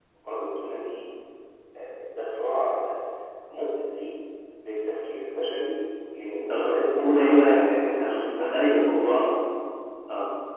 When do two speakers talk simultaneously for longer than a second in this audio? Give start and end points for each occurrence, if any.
6.5-8.4

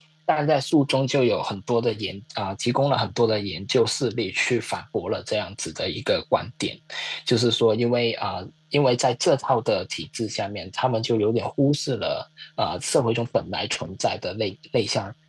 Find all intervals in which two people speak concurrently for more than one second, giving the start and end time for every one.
none

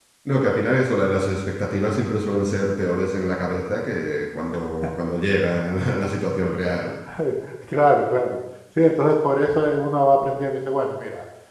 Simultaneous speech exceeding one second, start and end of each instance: none

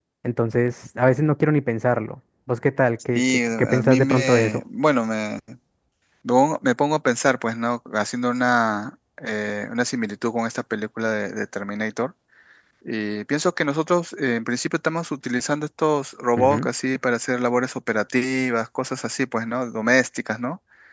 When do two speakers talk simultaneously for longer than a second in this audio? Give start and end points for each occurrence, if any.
3.2-4.6

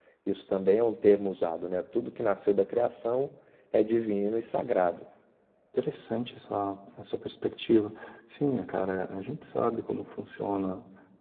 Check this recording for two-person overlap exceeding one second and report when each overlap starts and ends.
none

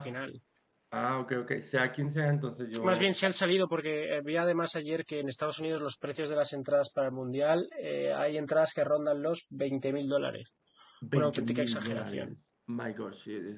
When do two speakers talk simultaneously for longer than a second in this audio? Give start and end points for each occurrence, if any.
11.1-12.3

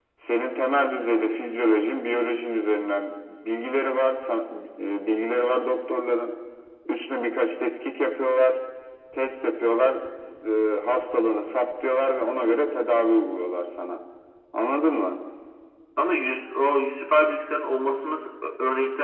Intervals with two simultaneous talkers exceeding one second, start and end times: none

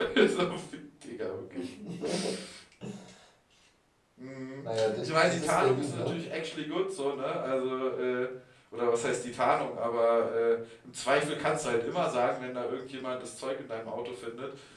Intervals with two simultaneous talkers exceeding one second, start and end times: 4.6-6.2

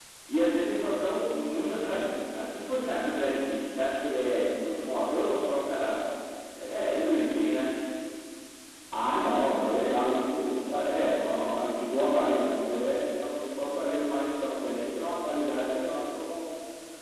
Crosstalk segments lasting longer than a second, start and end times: none

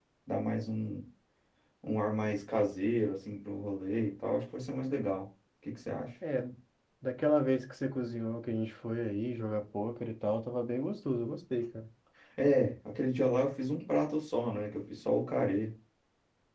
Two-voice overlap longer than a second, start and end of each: none

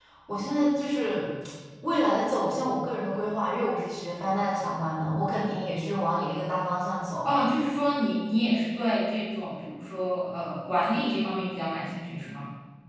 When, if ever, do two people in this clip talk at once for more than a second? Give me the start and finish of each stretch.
none

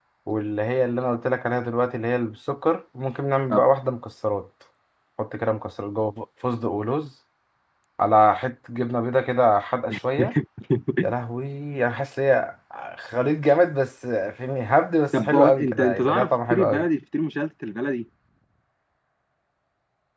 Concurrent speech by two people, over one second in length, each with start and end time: 15.2-16.9

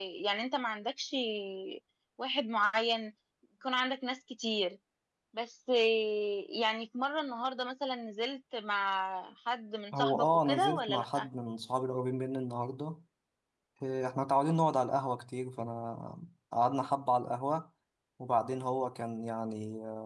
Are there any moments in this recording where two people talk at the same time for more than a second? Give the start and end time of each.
9.9-11.3

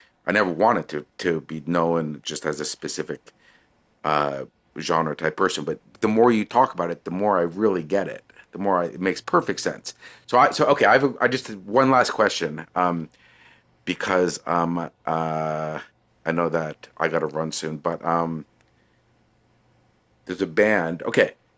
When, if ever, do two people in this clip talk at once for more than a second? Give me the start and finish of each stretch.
none

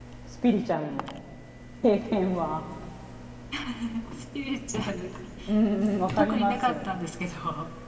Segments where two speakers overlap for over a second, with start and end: 5.7-7.0

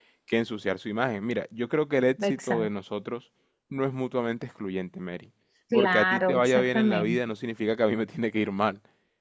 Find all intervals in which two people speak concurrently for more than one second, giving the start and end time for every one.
5.7-7.2

